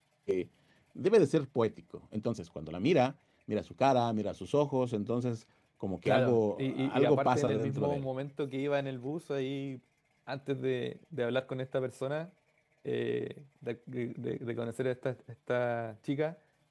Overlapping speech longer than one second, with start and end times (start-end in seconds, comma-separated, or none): 6.0-8.1